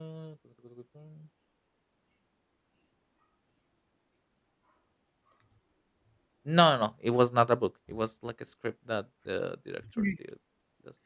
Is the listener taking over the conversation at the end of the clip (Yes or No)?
No